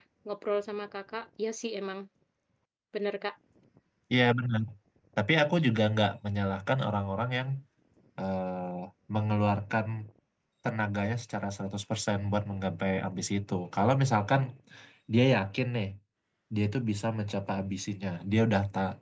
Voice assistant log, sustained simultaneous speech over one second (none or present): none